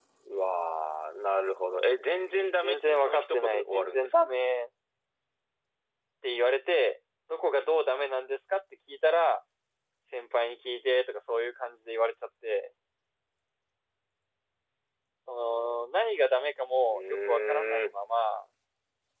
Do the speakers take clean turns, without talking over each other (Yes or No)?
No